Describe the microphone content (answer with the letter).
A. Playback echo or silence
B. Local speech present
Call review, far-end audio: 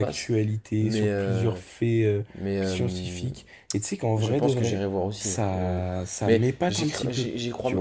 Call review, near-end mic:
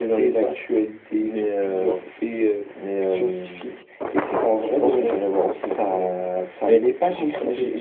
A